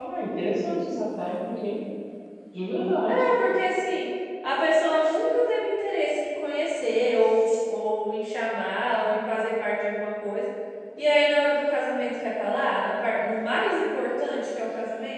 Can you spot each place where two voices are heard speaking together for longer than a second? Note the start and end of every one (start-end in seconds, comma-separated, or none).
none